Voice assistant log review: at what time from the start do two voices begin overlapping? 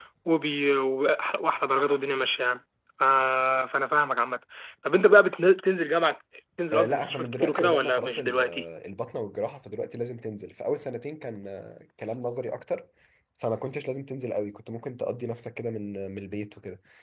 7 s

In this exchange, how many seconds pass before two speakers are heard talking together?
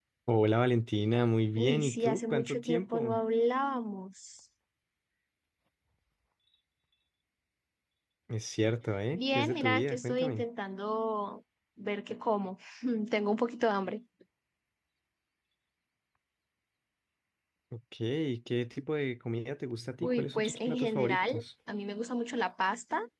2 s

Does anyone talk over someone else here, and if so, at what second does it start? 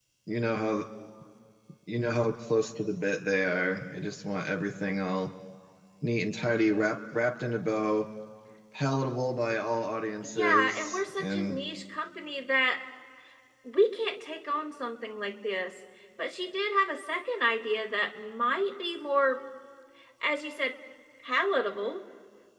10 s

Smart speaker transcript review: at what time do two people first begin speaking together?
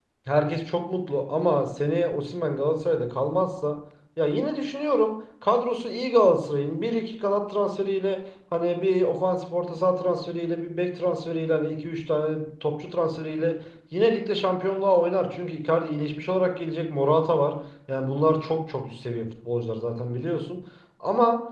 none

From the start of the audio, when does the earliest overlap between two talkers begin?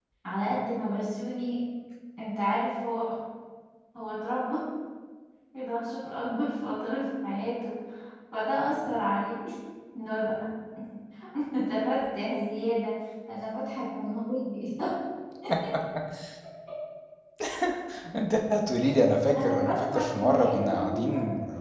19 s

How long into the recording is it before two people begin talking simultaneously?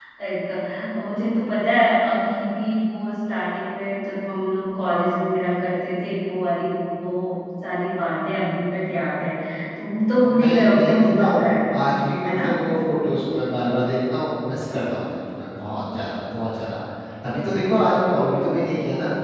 10 s

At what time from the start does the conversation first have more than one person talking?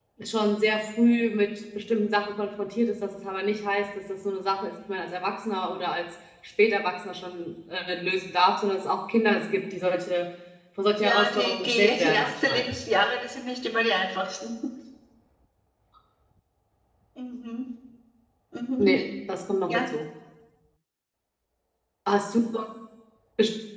11 s

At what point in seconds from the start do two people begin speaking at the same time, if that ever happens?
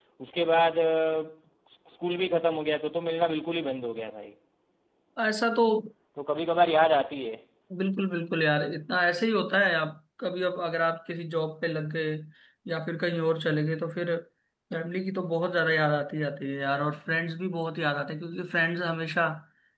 none

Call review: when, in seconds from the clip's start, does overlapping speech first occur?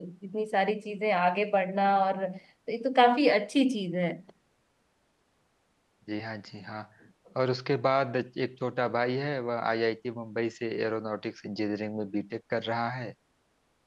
none

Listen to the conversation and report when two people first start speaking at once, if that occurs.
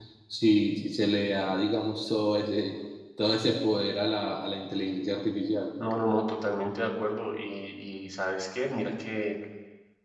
none

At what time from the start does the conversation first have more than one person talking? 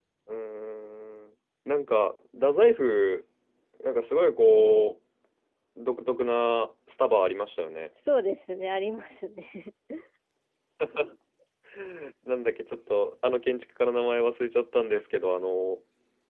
none

